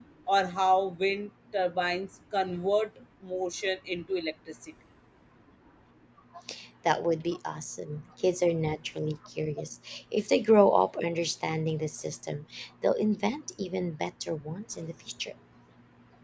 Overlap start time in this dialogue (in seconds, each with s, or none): none